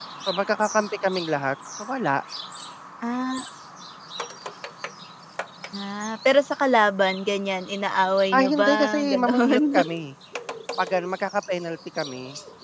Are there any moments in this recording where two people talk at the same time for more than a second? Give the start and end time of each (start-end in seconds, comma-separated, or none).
8.3-9.8